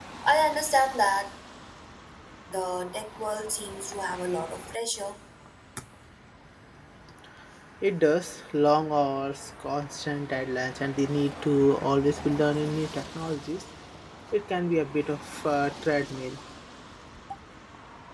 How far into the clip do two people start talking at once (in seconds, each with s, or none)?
none